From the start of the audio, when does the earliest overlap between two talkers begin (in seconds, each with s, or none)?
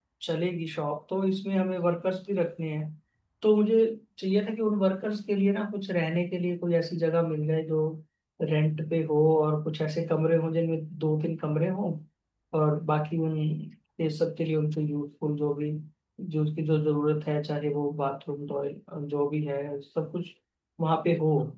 none